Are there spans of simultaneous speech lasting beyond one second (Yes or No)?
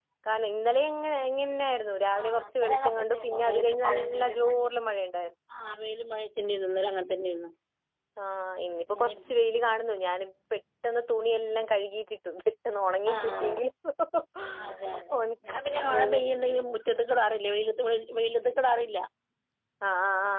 Yes